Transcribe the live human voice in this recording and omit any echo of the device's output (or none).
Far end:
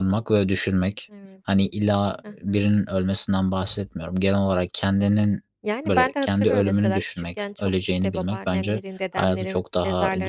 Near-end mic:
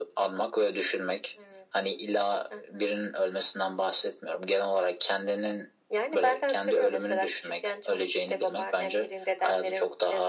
none